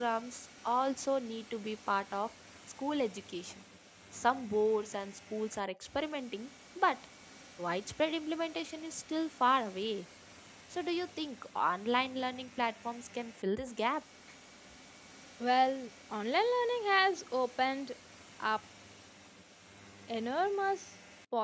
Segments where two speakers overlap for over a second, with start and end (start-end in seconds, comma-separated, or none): none